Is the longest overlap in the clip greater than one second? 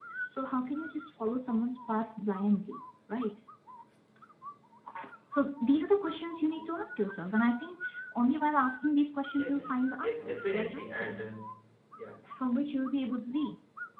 Yes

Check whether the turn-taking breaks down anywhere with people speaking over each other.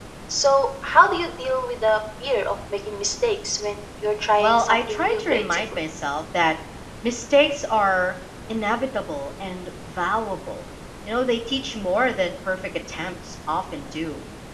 Yes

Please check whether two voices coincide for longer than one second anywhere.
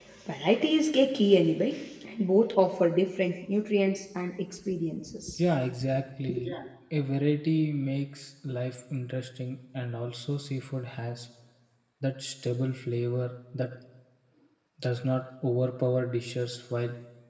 No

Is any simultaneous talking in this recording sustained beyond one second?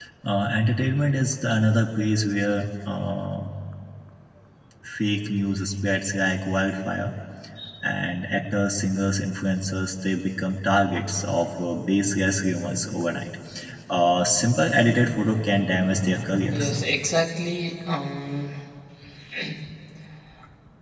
No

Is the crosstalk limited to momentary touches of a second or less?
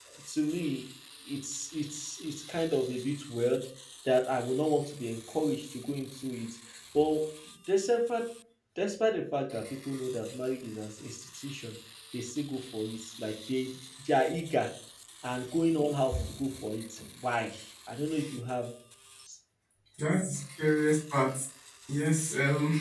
Yes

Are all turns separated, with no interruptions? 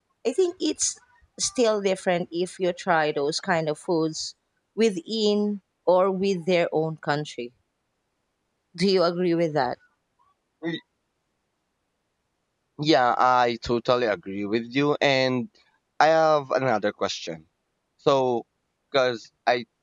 Yes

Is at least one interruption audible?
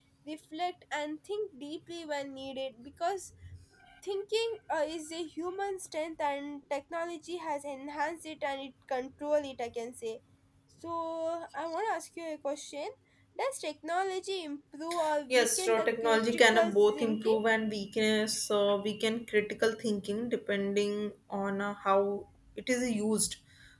Yes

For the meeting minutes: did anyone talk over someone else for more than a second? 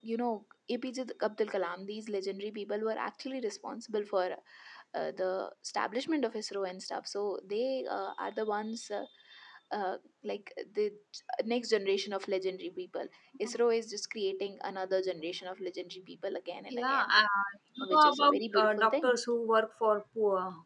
Yes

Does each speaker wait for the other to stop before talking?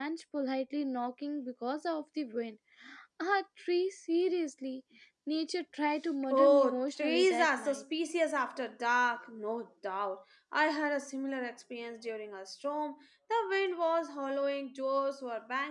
No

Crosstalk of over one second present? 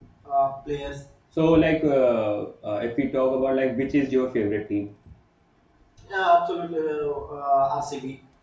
No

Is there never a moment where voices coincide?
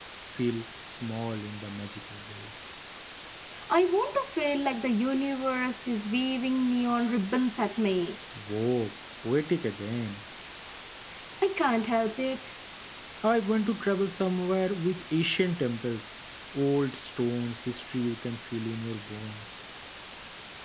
Yes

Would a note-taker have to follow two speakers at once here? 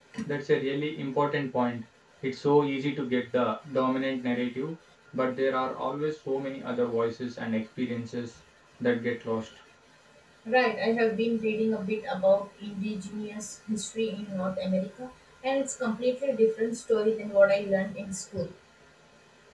No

